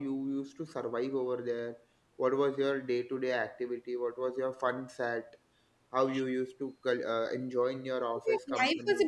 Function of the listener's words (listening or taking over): taking over